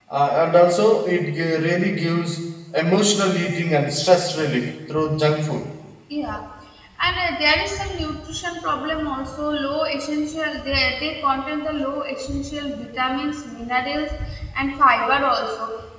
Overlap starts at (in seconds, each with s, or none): none